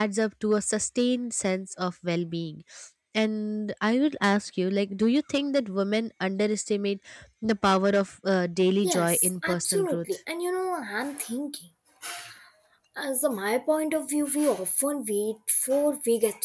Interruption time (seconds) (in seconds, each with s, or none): 8.8 s